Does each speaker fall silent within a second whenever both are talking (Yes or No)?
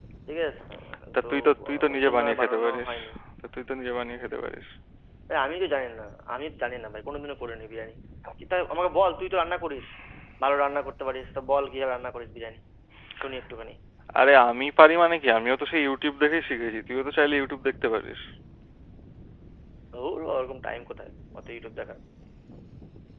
No